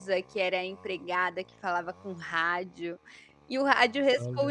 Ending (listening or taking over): listening